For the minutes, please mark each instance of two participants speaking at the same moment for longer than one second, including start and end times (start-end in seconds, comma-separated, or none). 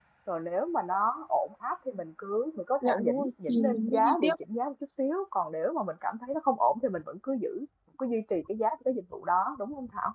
2.8-4.3